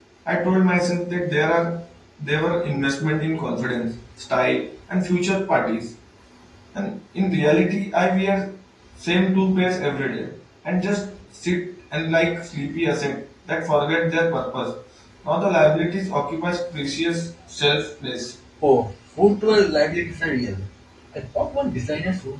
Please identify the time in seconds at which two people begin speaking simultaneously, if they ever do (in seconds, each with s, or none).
none